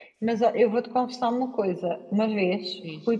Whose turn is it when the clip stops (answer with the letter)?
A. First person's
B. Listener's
A